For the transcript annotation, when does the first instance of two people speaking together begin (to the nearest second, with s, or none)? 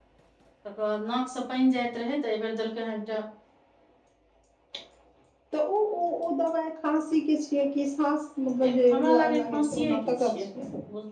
9 s